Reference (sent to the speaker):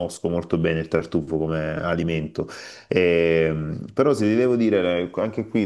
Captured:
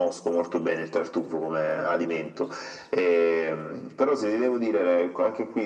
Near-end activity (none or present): none